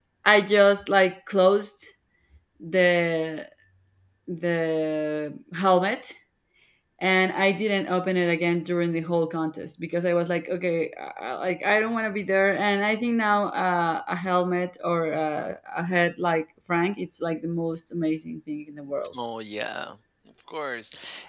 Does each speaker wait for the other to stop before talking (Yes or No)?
Yes